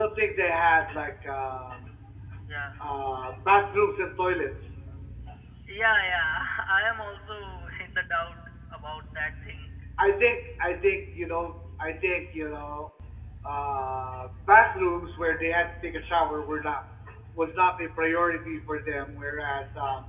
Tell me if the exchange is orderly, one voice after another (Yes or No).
Yes